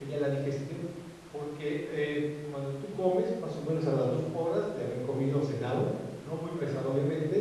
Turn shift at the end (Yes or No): No